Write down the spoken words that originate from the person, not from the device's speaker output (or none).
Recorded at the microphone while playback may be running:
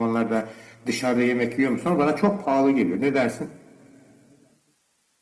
none